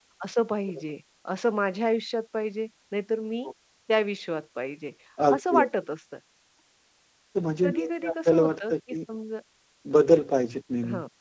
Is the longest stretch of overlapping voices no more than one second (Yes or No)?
No